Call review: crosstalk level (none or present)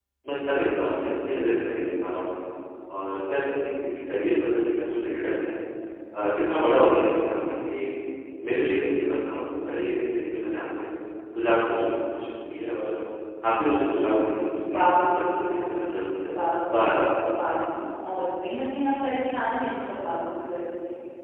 present